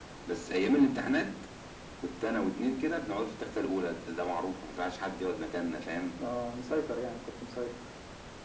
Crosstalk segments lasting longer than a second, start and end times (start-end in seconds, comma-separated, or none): none